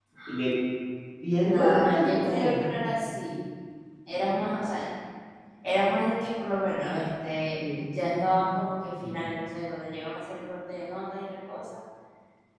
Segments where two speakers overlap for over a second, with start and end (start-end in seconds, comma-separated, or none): 1.4-2.7